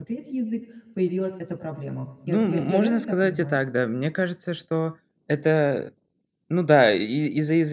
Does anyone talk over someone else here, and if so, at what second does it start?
2.2 s

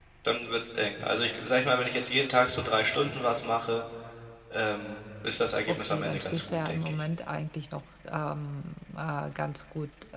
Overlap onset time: 5.7 s

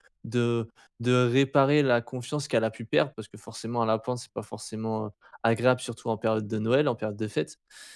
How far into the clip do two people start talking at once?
none

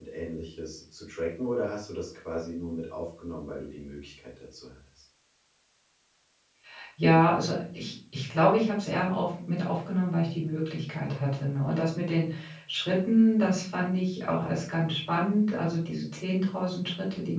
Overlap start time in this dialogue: none

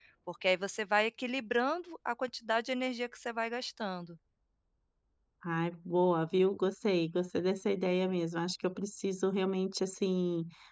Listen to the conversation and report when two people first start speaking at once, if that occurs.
none

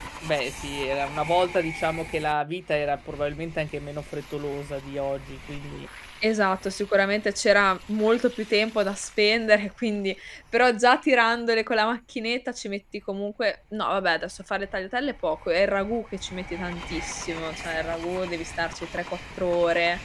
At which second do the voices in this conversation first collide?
none

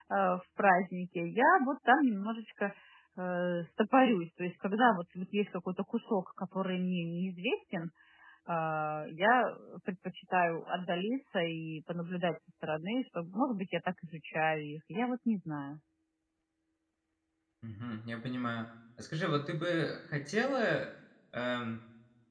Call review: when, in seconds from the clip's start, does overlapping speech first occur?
none

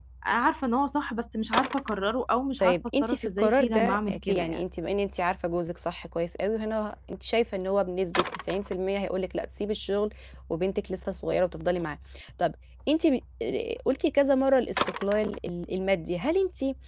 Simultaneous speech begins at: 2.6 s

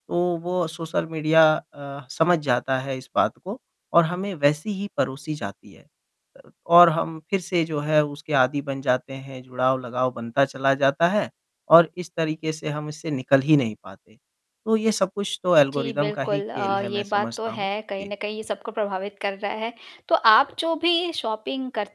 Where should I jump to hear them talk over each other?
15.7 s

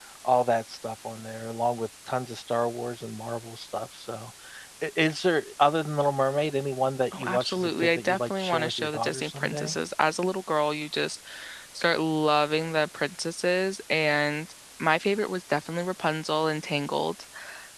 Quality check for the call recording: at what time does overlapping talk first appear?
7.1 s

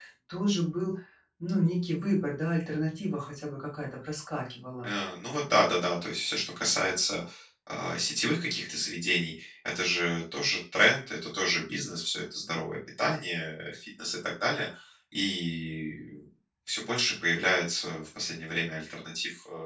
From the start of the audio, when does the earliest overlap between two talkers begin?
none

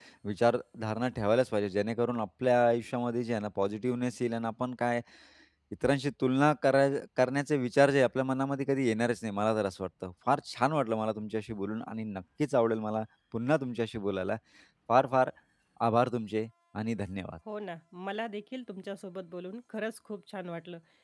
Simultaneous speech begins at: none

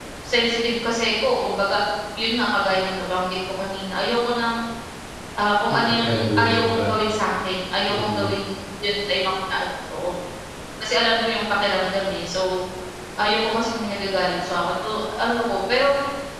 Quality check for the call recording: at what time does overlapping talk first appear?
5.7 s

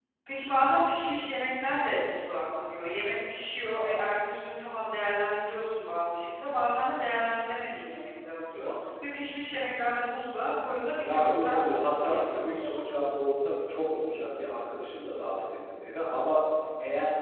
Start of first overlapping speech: 11.0 s

